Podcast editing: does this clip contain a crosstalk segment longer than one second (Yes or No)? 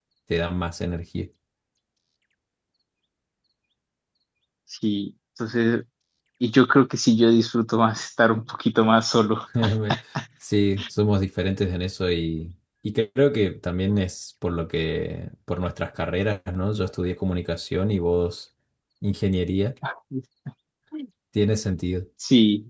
No